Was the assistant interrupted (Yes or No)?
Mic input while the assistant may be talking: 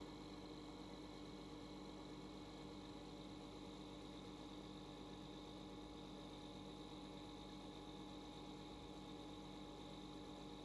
No